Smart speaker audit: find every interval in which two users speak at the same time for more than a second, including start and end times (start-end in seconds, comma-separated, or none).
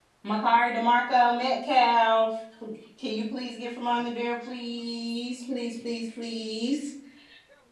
none